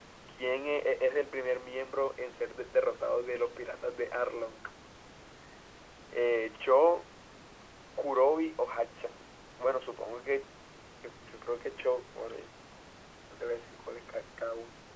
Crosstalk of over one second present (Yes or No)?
No